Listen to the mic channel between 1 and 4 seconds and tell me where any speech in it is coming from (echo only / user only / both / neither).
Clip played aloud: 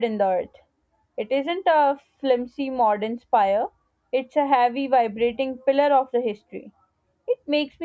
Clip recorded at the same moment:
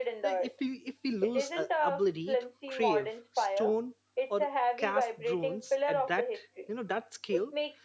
both